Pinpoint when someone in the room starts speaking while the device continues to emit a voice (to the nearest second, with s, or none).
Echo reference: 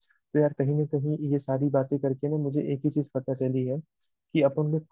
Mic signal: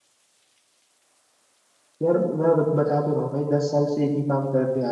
2 s